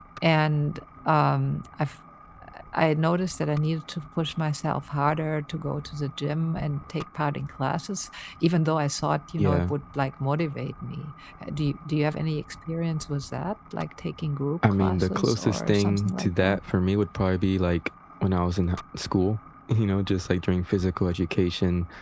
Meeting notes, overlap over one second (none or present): present